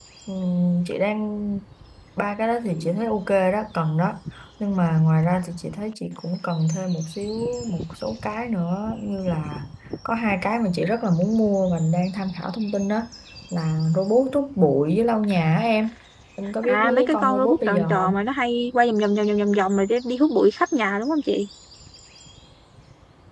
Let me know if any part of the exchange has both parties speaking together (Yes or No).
Yes